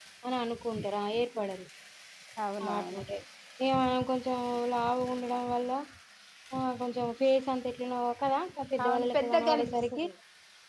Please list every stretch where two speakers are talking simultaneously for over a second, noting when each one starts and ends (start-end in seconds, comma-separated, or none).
8.8-10.0